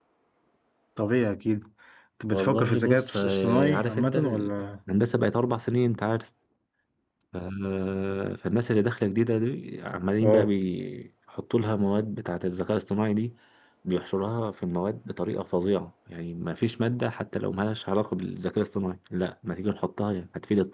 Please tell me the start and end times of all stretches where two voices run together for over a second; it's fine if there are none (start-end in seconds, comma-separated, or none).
2.3-4.5